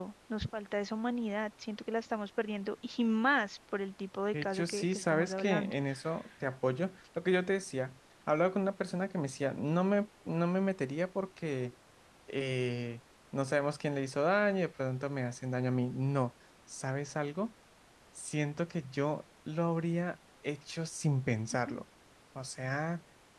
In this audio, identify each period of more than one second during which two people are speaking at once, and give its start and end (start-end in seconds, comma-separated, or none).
4.3-5.7